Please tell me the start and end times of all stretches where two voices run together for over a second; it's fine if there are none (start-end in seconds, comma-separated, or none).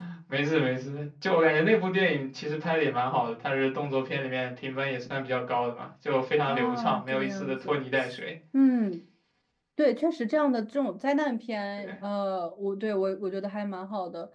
6.5-7.8